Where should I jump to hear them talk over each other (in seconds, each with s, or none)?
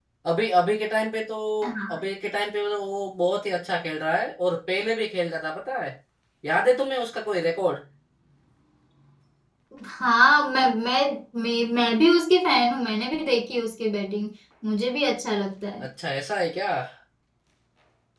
none